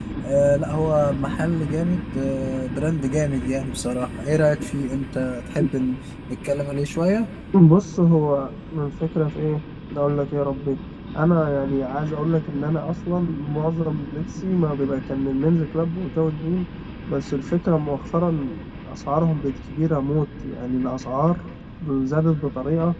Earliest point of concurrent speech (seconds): none

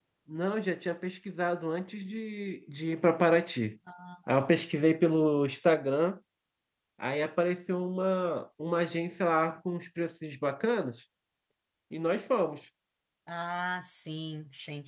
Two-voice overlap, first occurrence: none

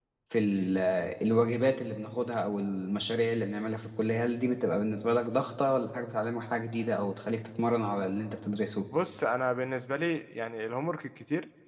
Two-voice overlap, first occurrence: none

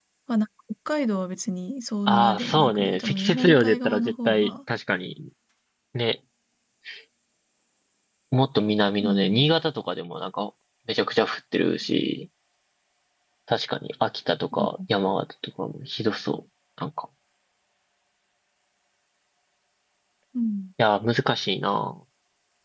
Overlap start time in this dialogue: 2.1 s

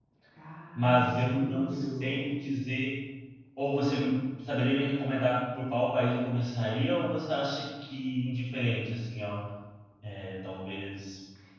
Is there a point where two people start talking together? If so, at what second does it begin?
0.8 s

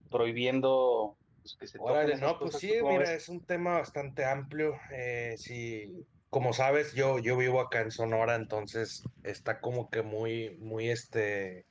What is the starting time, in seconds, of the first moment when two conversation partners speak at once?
1.8 s

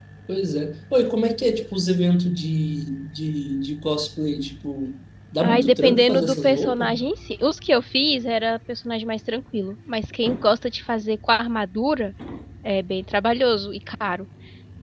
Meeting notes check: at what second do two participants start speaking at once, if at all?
5.4 s

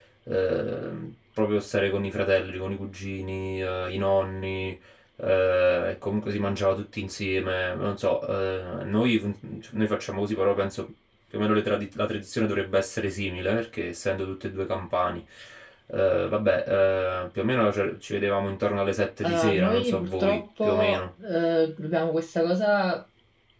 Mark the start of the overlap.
19.2 s

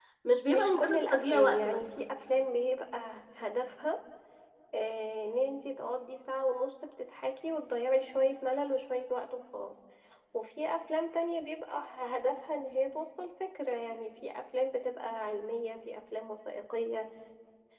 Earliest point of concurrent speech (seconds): 0.5 s

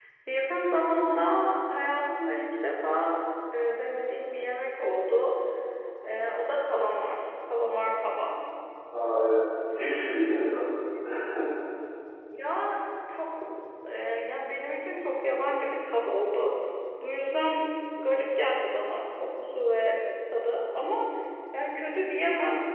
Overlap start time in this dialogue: none

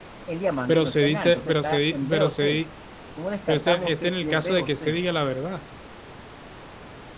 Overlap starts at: 0.7 s

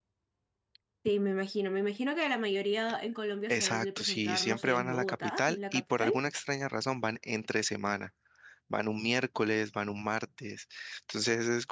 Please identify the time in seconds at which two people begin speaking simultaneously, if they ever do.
3.5 s

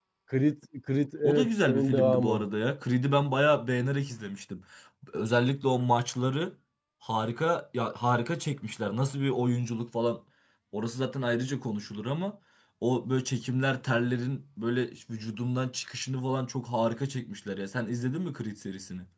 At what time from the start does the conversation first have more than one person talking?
1.2 s

